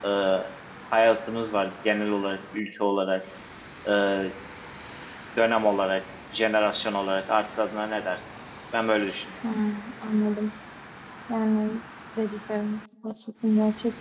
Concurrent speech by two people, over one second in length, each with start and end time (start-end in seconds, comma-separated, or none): none